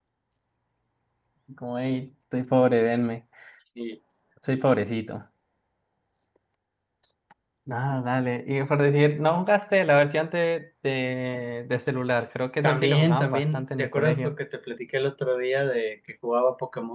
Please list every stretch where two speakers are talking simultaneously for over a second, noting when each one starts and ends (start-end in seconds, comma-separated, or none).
12.6-14.3